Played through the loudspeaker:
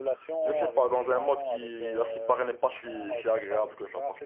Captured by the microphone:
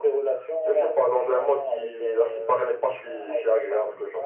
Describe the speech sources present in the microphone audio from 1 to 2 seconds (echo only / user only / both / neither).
echo only